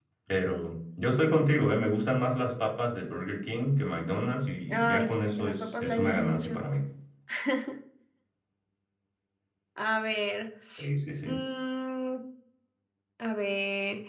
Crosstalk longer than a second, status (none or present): present